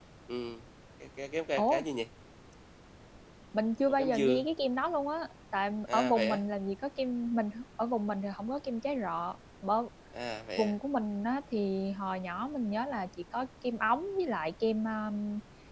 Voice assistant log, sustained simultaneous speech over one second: none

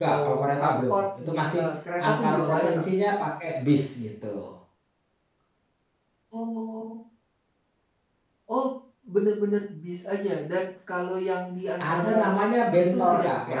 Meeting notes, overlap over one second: present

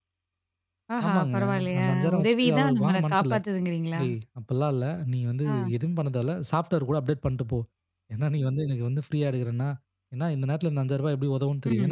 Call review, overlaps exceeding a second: present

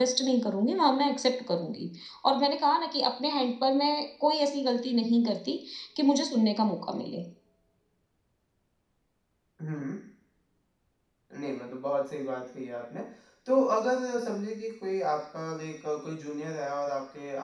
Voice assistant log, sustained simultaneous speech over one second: none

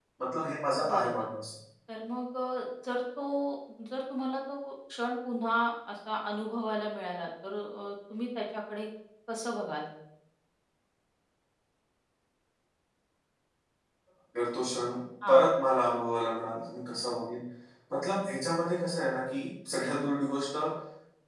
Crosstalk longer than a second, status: none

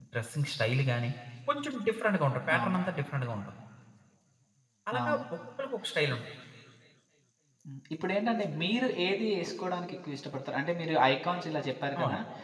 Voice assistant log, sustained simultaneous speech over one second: none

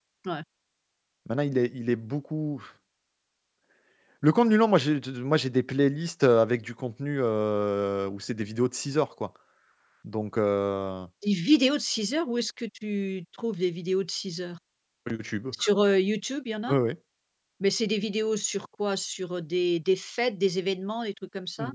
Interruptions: none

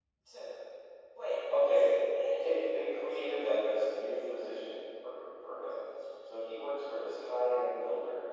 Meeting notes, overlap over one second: present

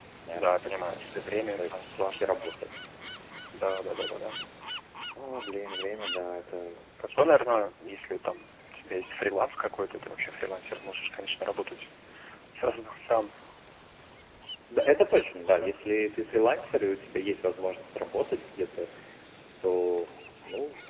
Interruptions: present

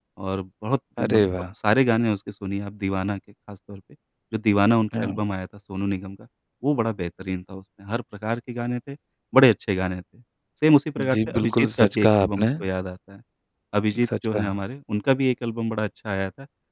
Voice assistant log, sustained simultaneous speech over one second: present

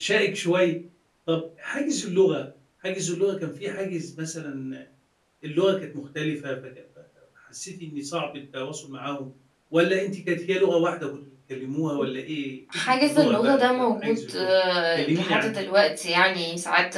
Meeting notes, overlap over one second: present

